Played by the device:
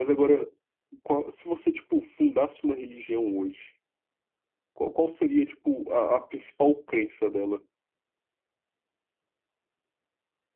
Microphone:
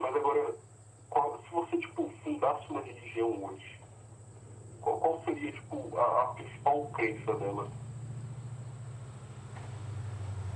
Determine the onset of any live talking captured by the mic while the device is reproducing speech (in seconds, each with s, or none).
none